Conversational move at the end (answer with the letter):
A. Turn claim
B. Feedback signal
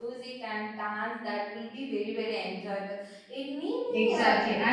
A